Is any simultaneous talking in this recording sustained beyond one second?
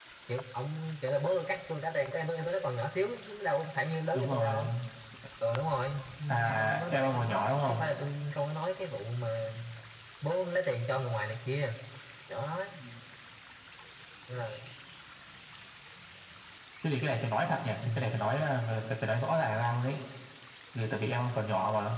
Yes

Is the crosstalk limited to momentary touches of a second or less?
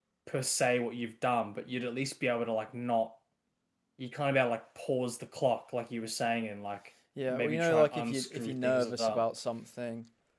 No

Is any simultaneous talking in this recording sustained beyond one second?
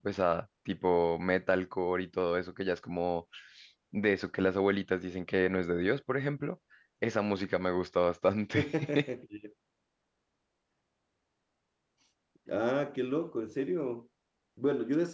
No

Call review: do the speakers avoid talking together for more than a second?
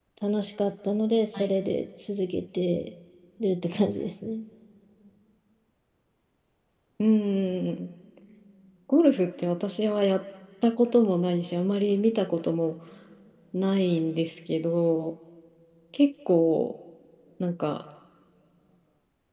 Yes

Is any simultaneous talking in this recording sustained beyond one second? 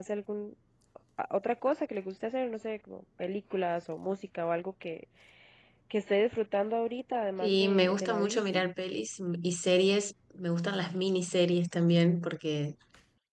Yes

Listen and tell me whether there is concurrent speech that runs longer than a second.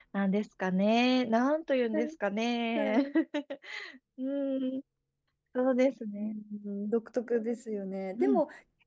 No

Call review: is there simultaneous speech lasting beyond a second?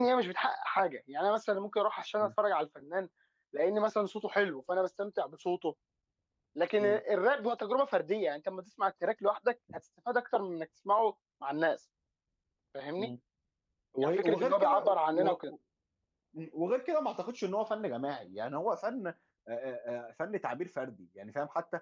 Yes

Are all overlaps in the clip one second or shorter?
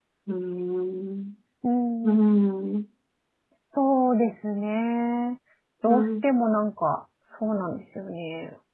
Yes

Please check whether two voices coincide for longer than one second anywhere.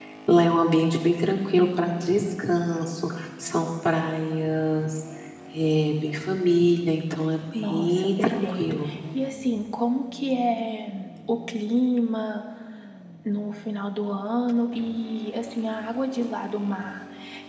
Yes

